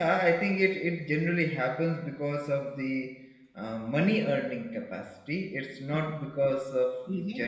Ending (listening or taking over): taking over